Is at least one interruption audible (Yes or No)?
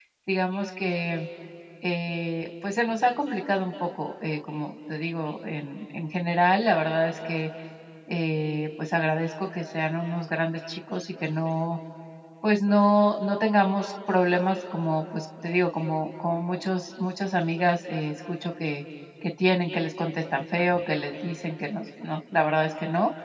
No